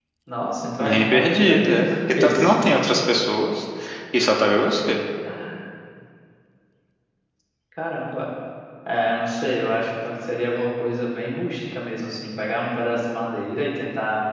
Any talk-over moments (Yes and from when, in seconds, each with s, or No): Yes, from 0.8 s